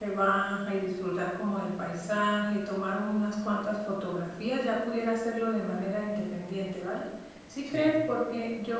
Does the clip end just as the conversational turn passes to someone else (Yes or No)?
No